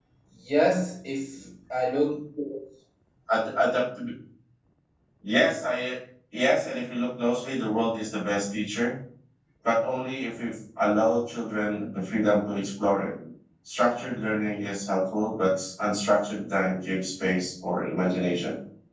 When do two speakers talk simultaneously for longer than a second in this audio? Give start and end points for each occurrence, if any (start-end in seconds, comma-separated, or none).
none